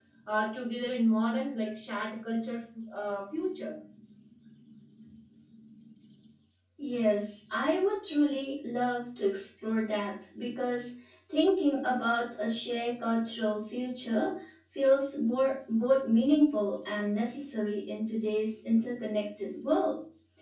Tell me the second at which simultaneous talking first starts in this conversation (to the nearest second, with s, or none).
none